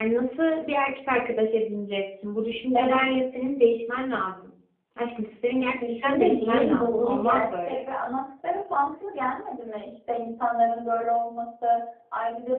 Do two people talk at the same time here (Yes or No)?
Yes